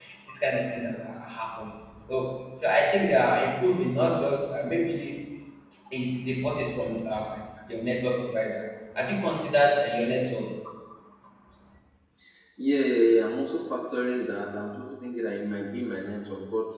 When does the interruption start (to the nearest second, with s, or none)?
none